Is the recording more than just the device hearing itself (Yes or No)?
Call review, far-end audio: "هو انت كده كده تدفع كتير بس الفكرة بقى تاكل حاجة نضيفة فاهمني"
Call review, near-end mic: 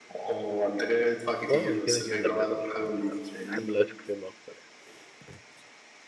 Yes